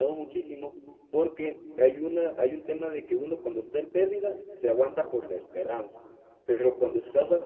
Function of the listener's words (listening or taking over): listening